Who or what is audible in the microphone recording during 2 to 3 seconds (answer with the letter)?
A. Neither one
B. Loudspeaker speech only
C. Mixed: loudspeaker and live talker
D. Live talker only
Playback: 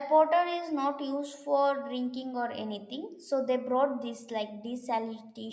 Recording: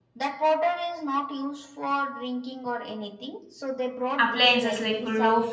B